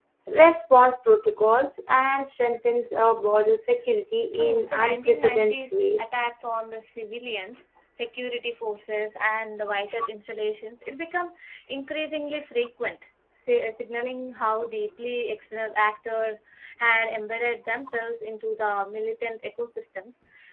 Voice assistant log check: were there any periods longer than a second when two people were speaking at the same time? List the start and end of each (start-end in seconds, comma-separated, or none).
4.3-6.1